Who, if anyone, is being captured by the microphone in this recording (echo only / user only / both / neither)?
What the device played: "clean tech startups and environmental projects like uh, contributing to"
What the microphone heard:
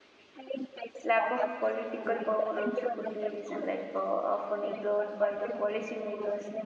both